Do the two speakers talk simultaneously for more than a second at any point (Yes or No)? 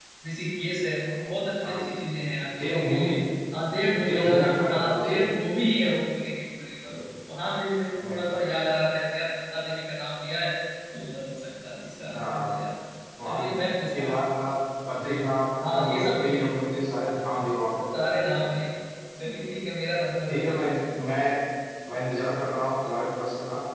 Yes